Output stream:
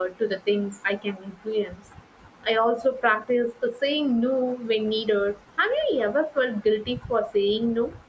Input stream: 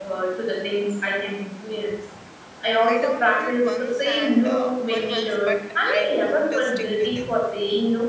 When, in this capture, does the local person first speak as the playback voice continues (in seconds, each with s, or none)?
2.8 s